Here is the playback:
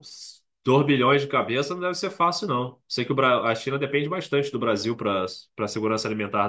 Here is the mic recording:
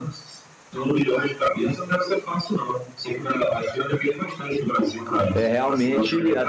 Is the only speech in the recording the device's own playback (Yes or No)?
No